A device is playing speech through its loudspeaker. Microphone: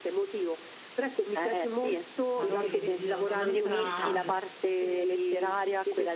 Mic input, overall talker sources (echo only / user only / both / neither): both